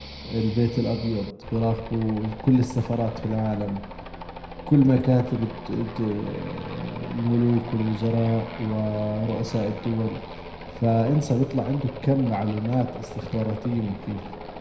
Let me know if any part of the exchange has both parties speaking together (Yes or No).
No